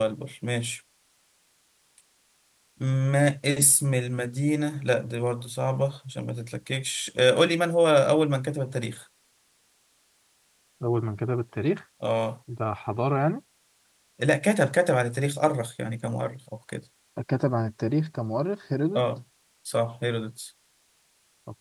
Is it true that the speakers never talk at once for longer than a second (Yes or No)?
Yes